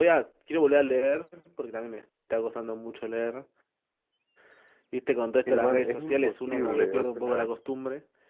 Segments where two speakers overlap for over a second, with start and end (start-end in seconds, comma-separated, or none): 5.5-7.5